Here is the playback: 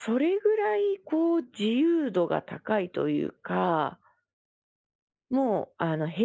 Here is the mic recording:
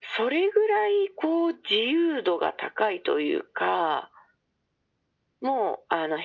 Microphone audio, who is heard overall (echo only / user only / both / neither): echo only